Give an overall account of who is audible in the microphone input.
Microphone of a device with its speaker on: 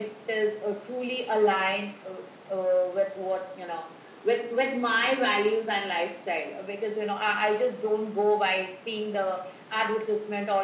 echo only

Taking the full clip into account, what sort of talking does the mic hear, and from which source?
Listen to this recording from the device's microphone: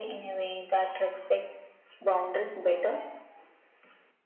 echo only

